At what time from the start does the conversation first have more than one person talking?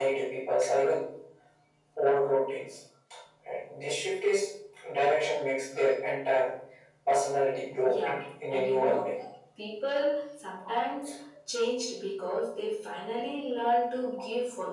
7.8 s

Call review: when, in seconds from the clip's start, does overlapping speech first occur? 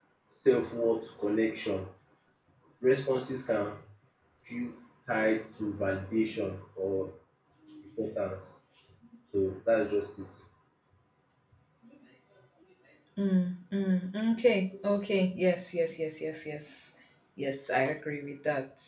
none

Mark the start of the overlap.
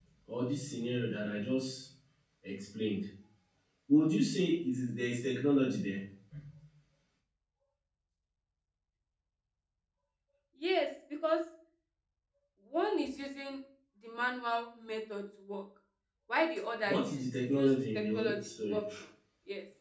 16.8 s

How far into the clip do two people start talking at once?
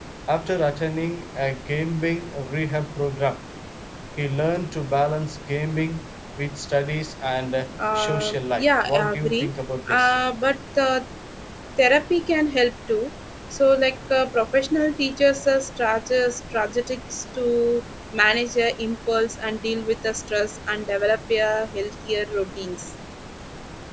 7.8 s

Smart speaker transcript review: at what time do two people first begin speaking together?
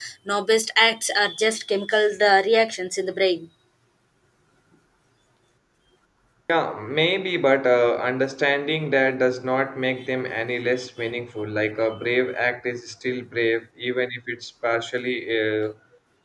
none

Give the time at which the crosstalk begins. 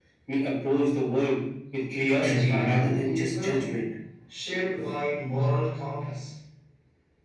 2.1 s

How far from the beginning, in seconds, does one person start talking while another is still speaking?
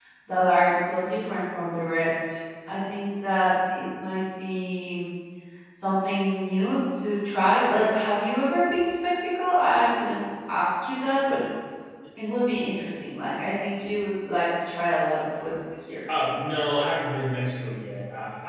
none

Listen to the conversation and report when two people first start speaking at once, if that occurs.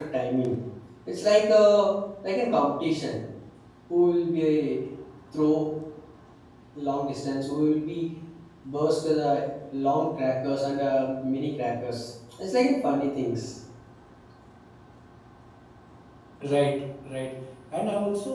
none

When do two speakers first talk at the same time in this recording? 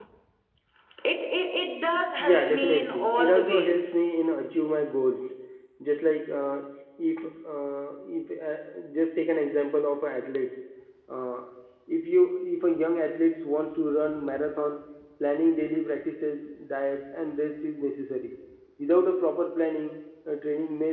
2.2 s

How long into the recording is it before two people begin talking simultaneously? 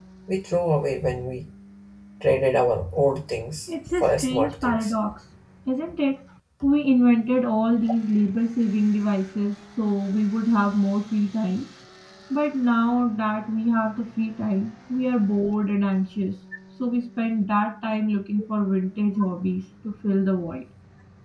3.7 s

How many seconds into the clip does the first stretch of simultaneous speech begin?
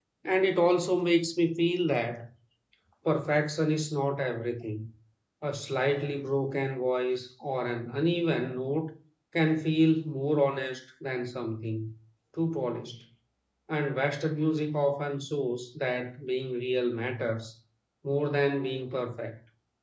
none

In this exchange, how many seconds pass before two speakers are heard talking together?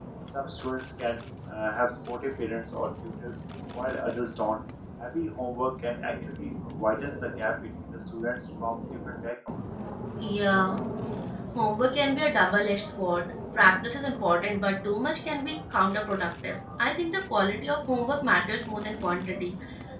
none

